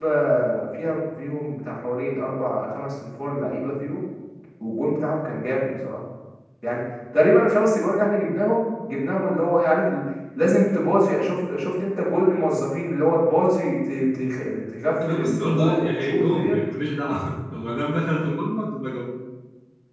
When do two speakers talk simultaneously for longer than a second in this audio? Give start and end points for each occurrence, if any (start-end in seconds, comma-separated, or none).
15.1-16.6